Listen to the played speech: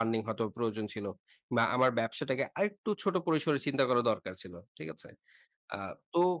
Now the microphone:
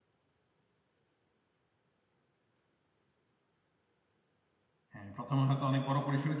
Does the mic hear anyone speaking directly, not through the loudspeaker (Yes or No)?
Yes